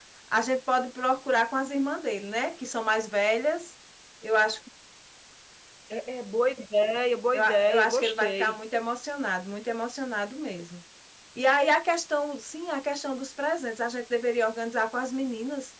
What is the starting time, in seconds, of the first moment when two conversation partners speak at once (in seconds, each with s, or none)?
7.3 s